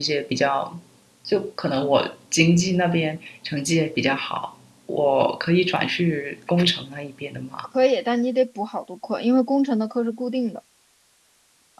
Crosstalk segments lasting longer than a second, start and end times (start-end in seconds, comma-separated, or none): none